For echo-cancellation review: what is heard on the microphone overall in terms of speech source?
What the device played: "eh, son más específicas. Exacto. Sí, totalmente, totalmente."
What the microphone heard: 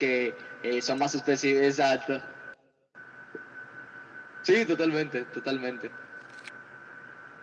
echo only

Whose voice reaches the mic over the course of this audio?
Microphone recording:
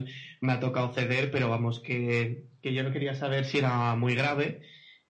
echo only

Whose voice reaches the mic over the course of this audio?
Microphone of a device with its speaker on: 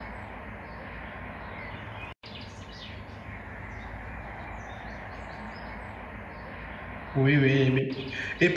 user only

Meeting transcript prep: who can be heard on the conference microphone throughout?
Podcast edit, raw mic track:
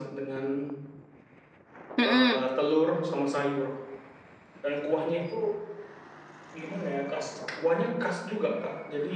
both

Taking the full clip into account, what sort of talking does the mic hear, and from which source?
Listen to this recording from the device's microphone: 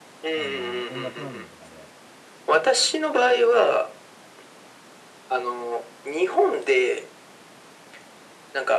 both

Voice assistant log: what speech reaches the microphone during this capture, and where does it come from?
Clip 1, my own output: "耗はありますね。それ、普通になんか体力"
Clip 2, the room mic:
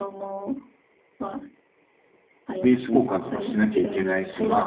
both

